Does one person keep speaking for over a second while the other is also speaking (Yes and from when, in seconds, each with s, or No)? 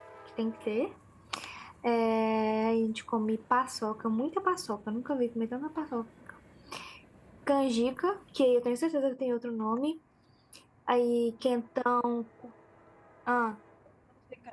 No